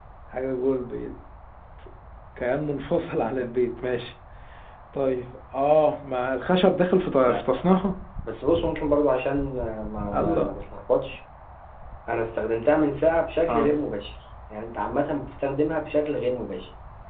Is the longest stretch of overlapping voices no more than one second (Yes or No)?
Yes